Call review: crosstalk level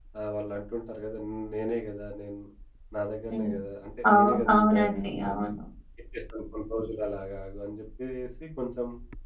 present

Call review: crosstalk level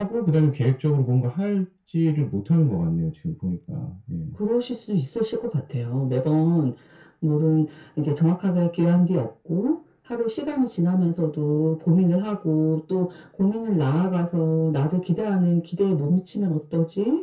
none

